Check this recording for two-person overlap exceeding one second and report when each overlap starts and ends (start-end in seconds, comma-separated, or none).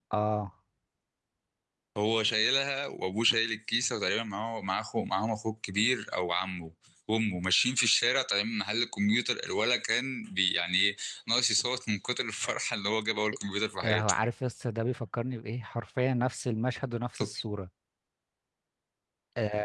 none